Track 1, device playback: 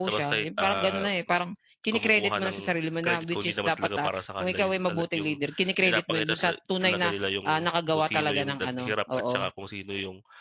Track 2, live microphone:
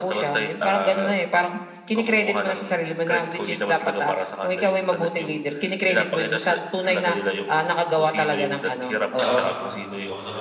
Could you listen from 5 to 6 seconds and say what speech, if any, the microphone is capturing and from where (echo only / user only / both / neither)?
echo only